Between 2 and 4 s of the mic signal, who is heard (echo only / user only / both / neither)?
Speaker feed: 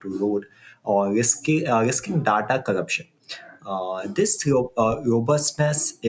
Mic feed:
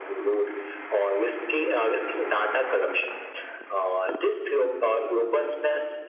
echo only